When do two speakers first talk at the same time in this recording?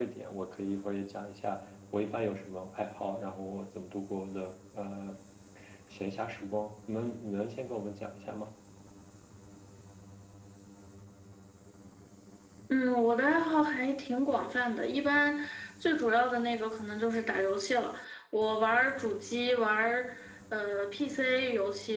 none

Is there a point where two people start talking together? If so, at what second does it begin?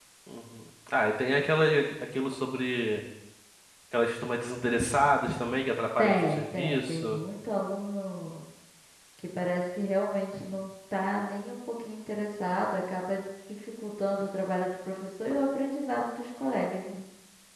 6.0 s

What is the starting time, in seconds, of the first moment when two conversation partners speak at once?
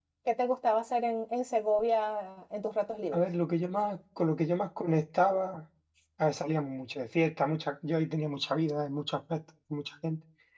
none

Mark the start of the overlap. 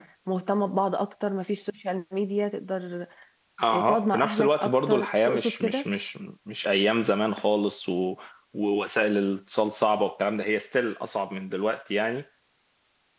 3.7 s

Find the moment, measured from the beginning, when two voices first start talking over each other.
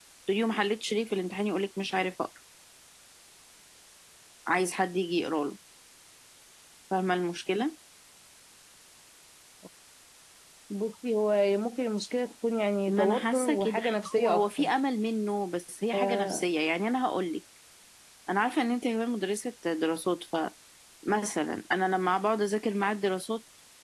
12.9 s

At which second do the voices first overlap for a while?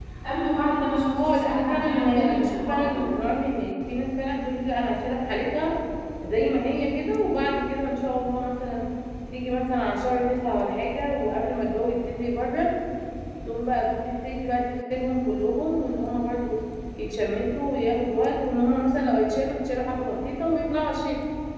1.2 s

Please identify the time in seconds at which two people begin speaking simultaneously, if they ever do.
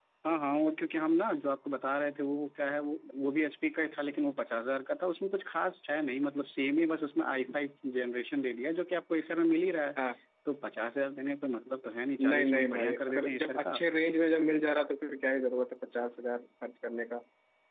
12.2 s

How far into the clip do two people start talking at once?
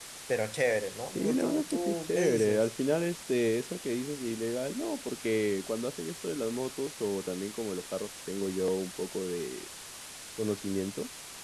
1.2 s

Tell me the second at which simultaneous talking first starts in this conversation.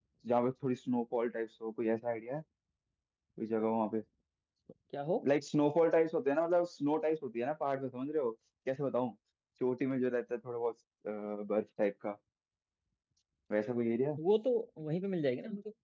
none

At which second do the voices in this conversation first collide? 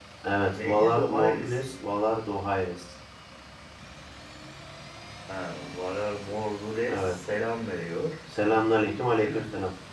0.5 s

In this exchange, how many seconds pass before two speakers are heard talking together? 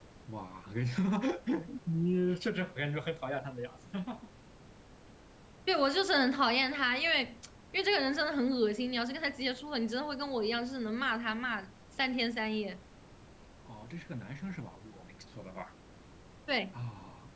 none

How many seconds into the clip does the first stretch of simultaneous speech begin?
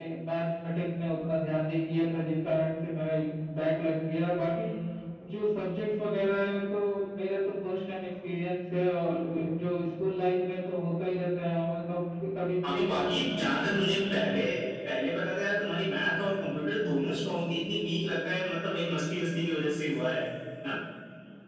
12.6 s

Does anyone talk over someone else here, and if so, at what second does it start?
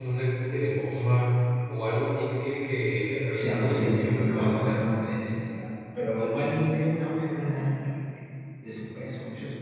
3.3 s

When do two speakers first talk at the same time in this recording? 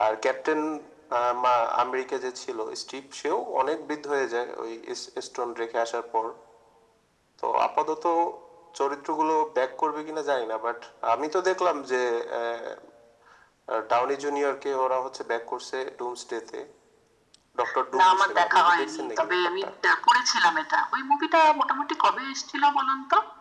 18.0 s

